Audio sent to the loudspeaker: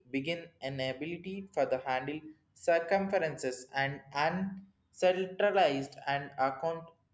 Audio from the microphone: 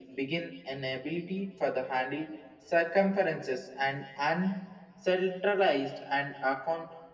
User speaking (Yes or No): No